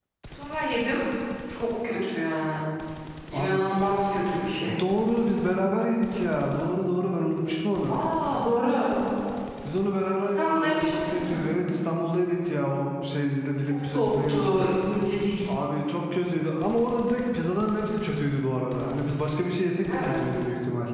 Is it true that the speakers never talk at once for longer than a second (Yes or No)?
No